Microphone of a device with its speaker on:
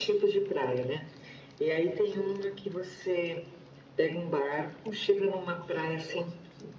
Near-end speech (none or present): none